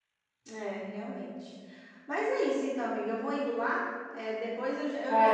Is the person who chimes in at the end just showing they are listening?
Yes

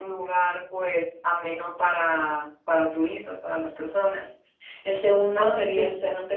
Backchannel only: Yes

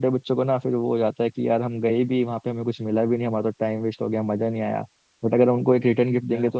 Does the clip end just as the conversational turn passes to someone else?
No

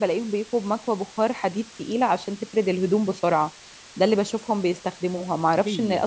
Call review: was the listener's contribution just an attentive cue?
Yes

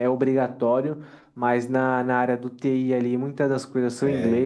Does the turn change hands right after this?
No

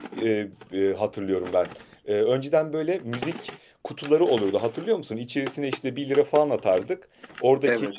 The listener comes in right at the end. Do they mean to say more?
No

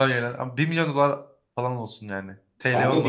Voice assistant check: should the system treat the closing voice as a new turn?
Yes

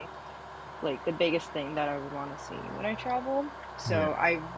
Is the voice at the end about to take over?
No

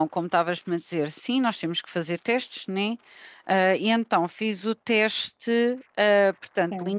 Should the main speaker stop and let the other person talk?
No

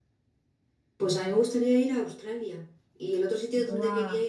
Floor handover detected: No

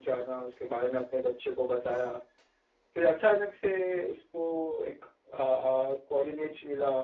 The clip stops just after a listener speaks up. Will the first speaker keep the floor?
Yes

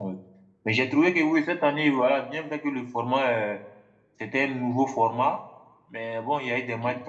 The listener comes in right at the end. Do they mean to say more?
No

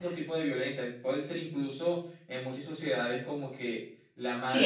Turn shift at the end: Yes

